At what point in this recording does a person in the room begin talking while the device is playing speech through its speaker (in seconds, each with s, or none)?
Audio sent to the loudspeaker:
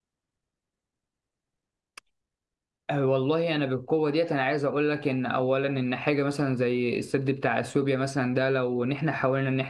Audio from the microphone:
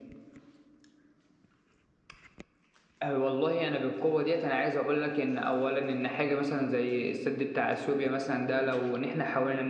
none